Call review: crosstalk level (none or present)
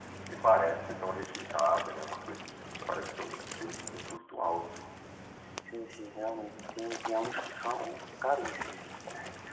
none